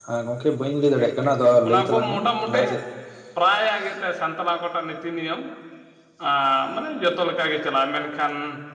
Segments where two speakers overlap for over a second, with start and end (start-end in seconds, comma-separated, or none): 1.0-2.6